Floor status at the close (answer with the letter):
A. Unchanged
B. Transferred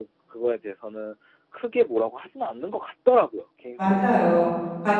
B